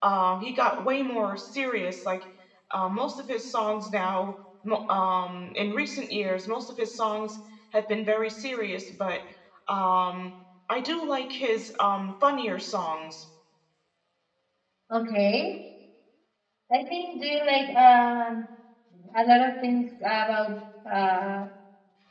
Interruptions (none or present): none